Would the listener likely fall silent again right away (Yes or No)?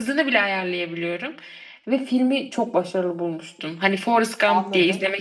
No